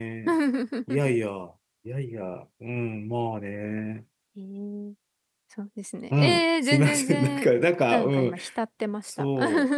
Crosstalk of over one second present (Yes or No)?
Yes